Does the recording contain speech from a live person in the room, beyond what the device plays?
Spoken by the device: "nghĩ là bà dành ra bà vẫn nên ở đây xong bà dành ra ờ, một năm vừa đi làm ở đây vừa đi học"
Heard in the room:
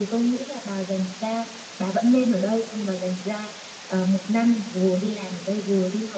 No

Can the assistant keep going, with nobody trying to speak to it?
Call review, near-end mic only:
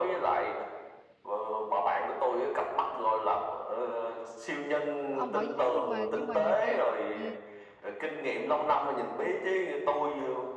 No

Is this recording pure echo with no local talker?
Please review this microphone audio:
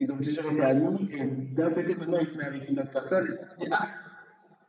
Yes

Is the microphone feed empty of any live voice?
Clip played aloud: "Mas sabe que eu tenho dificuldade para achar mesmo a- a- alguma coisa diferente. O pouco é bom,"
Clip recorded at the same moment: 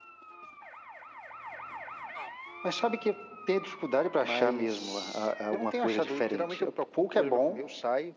No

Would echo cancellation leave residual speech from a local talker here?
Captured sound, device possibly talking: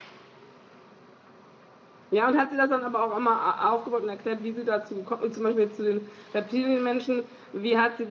Yes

